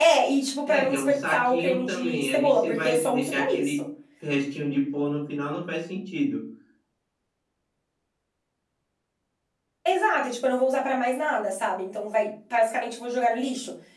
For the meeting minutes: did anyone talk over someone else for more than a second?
Yes, from 0.7 s

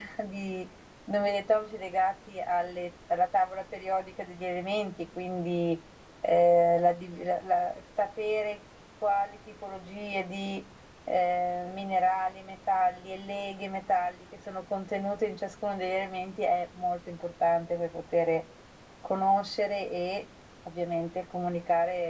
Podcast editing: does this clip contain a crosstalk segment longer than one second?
No

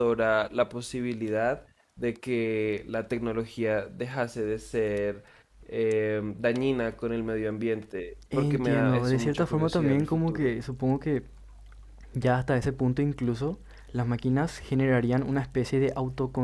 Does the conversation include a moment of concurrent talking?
Yes, from 8.3 s

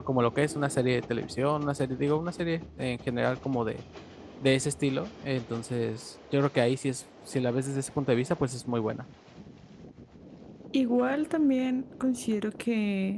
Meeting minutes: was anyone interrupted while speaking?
No

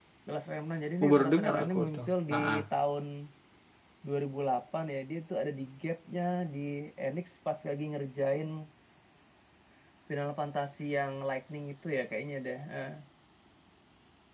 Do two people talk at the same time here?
Yes, from 1.0 s

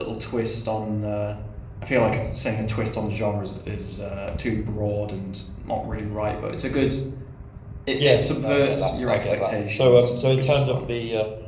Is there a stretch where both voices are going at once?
Yes, from 8.0 s

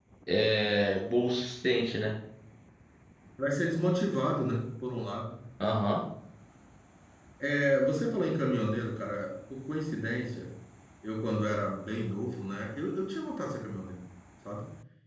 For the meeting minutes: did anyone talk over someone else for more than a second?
No

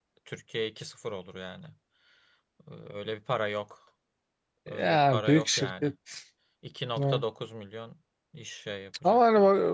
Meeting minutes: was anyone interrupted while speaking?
Yes, from 4.7 s

